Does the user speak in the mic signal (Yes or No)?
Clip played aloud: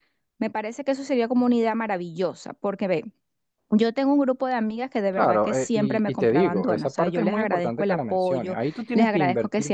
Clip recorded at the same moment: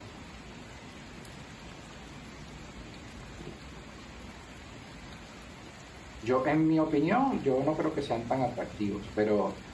Yes